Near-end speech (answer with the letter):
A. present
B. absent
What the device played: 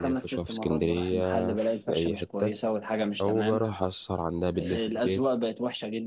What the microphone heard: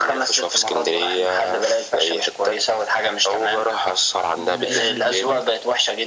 A